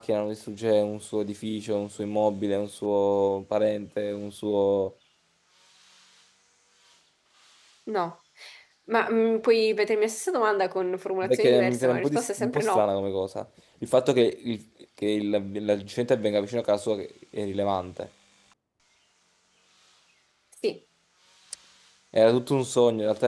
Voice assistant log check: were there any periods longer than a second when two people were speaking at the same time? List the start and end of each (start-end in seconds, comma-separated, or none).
11.2-12.9